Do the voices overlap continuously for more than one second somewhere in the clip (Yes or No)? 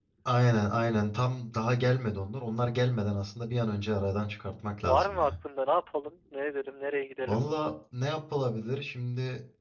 No